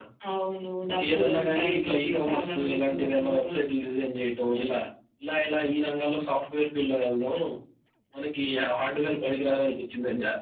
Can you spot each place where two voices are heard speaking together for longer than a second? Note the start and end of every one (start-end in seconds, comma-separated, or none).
0.9-3.4